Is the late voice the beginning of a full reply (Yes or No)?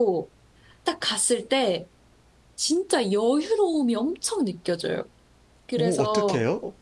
Yes